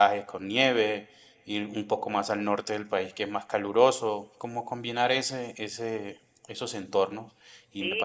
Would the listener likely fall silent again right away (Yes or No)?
No